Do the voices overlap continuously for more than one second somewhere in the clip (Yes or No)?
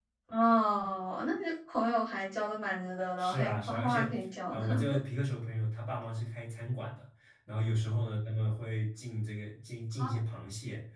Yes